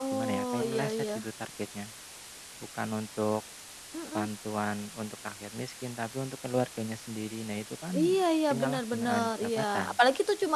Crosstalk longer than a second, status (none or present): present